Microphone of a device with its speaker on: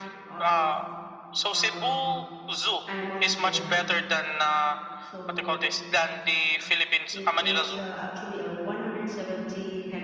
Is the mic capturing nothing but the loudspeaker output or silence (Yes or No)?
No